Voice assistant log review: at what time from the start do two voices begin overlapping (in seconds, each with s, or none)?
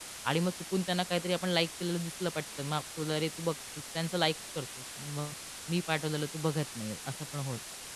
none